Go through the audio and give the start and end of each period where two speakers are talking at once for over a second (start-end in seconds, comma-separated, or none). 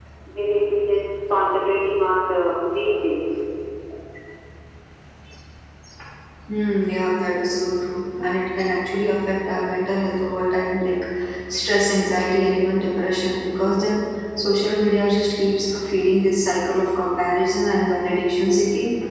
none